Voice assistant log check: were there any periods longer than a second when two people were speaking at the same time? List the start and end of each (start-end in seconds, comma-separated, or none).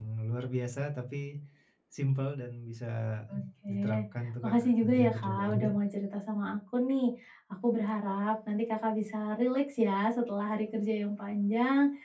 4.4-5.7